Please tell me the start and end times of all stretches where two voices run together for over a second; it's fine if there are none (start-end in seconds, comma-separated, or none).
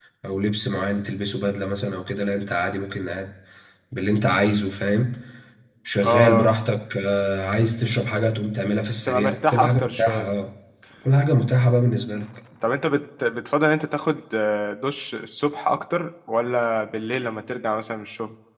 9.1-10.3